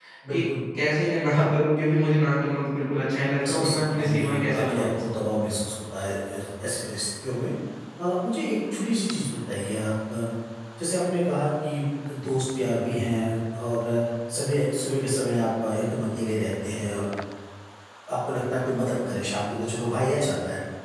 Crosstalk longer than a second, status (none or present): present